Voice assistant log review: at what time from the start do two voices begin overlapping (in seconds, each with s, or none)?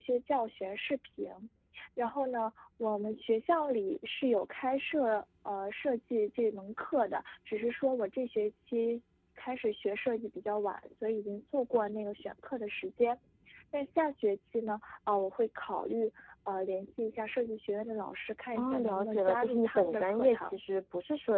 18.6 s